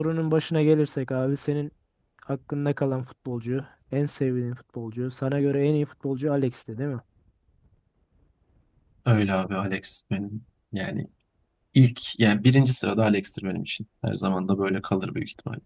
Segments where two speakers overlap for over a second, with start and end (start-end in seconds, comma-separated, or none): none